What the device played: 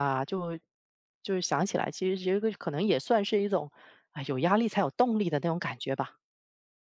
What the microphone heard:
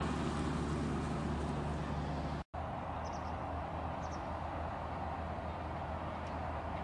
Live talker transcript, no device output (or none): none